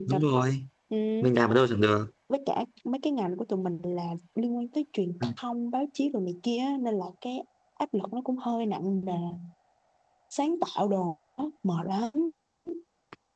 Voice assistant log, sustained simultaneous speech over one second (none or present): none